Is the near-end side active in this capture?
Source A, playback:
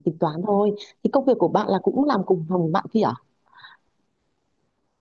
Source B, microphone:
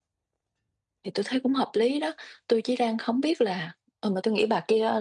Yes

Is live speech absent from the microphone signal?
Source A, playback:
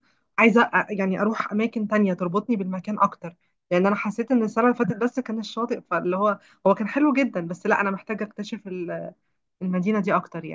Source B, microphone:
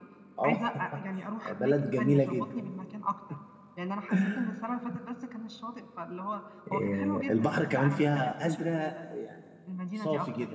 No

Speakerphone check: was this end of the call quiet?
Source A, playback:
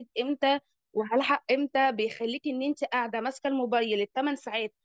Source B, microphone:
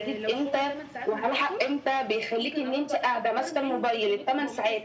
No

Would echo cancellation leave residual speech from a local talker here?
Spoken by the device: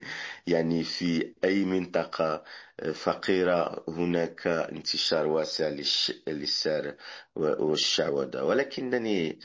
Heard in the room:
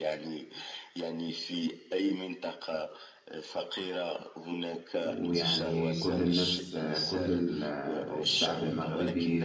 Yes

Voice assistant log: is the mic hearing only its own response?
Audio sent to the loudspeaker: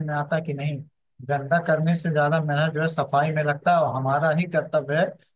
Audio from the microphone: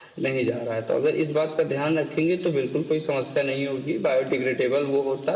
No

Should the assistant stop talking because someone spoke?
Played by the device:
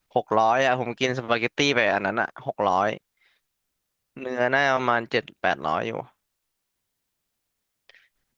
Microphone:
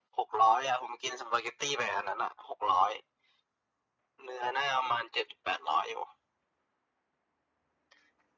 No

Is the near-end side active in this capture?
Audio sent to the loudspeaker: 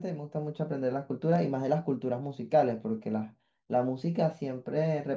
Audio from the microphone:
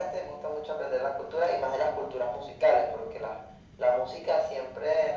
No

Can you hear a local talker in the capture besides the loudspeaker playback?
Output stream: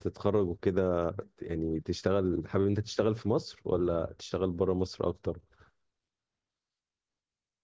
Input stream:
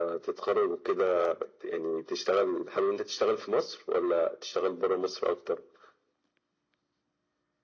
No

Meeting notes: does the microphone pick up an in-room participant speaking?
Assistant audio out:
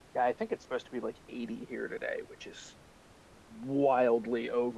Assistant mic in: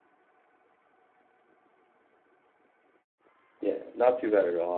Yes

